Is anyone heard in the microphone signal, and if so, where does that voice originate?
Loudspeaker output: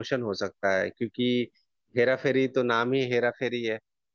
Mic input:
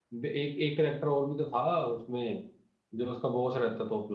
user only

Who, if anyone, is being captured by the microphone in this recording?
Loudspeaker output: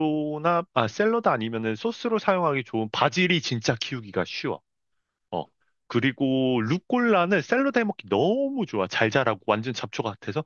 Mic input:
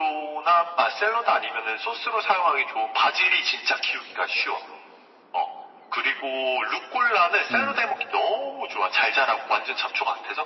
both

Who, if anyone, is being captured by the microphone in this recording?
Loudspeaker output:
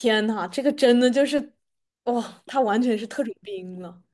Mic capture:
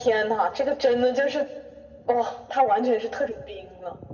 echo only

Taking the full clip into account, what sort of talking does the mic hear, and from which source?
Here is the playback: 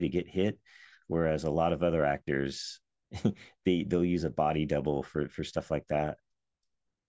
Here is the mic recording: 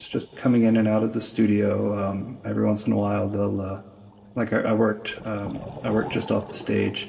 user only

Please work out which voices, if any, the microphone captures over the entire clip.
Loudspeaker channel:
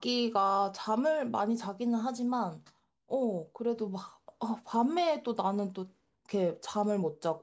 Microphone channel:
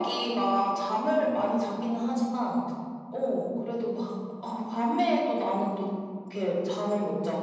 echo only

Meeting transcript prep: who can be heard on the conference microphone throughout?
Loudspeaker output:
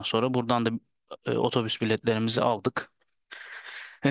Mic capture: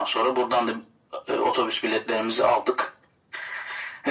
echo only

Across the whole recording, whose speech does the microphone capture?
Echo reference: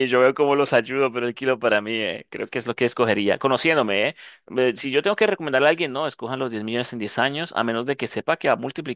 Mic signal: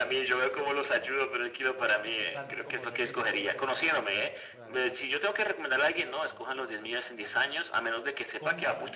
both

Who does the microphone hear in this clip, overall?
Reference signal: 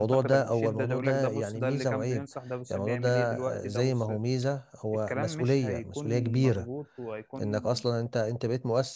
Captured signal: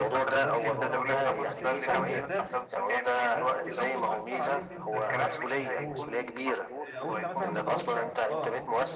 both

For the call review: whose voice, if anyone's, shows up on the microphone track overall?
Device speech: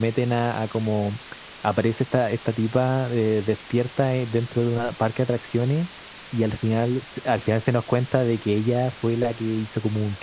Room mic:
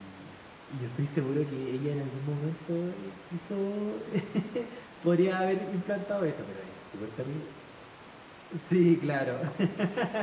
user only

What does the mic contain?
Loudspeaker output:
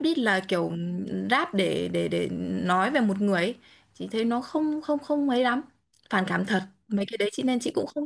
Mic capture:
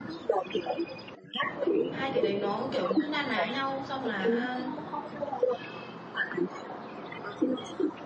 both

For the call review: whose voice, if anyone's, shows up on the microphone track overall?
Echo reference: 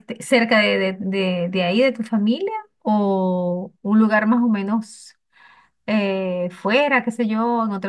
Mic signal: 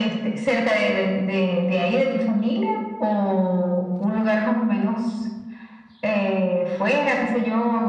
echo only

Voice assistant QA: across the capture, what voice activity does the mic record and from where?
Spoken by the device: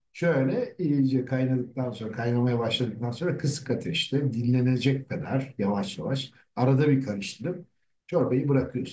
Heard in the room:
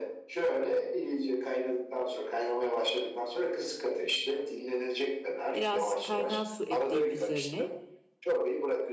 both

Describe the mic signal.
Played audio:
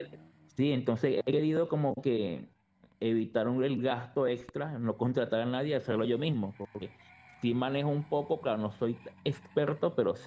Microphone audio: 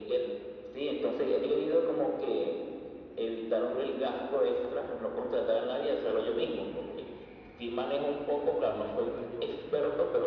both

